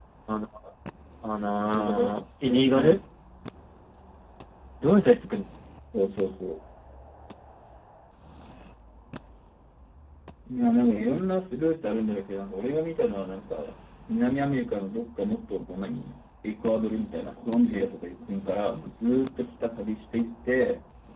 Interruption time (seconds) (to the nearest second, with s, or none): 2 s